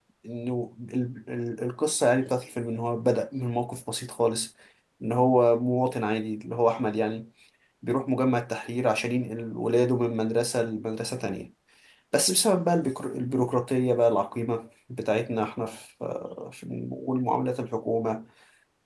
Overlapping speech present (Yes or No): No